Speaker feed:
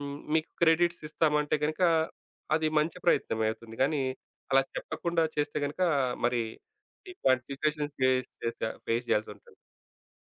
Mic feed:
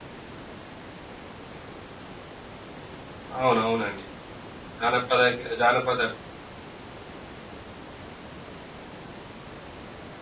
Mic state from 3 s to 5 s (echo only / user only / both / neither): user only